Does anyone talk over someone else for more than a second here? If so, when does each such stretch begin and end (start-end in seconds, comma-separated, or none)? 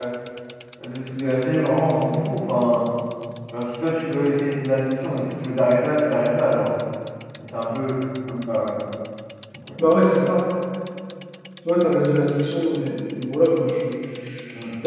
none